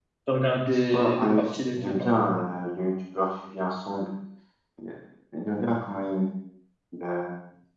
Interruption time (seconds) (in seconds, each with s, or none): 0.7 s